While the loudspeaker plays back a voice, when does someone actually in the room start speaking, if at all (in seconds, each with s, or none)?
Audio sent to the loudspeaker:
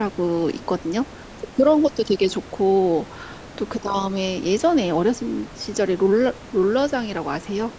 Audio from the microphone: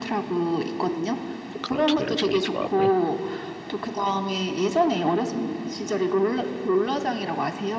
1.6 s